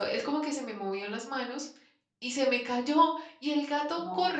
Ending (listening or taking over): listening